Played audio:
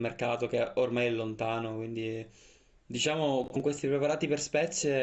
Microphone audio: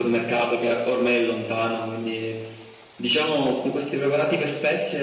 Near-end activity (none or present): none